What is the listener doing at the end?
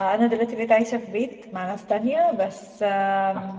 listening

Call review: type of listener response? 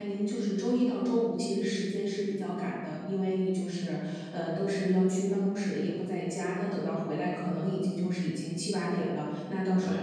listening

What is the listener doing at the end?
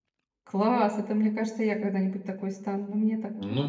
taking over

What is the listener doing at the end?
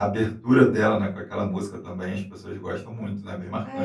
taking over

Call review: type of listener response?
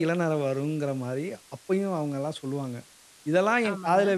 listening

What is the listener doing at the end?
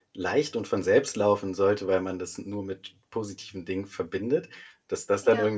listening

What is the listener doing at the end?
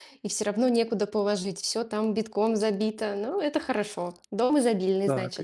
taking over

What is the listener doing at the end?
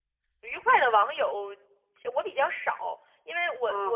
taking over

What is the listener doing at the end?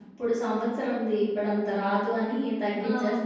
taking over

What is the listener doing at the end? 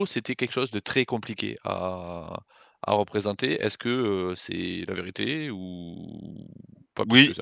taking over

